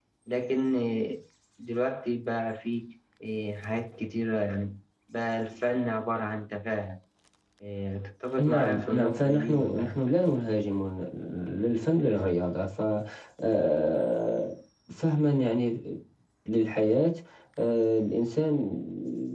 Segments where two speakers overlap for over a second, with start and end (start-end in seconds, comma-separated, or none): 8.4-10.0